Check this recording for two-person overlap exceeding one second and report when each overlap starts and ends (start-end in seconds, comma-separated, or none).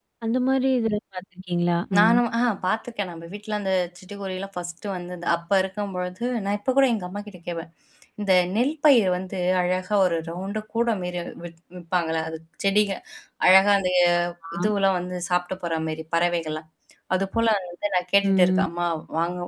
none